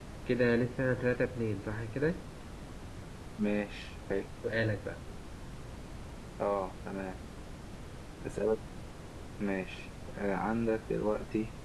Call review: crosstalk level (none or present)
none